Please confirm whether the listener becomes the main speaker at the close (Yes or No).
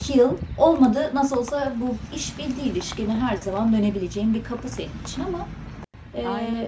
Yes